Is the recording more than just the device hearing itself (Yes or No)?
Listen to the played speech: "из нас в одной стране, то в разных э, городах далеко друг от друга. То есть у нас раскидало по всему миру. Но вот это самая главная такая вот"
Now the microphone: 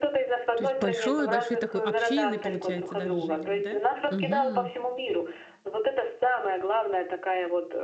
Yes